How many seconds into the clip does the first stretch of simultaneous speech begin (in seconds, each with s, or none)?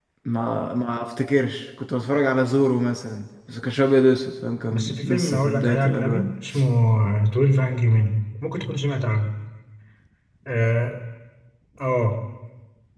4.7 s